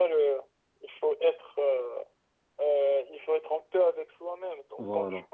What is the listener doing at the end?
listening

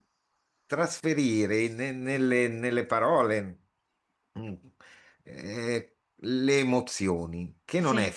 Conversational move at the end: listening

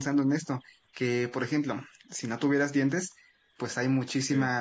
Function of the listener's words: listening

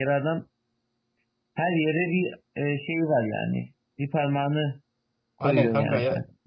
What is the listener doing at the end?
taking over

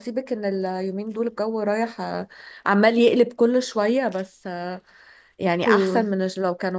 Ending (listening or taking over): listening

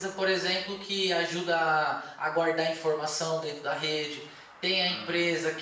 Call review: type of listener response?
listening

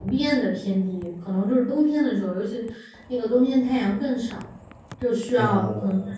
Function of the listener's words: listening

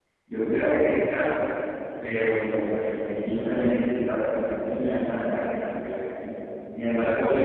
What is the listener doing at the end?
listening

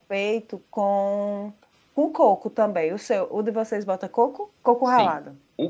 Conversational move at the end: taking over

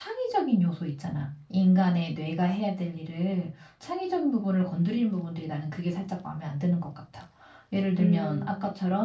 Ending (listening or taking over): listening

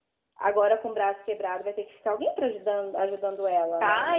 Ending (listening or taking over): taking over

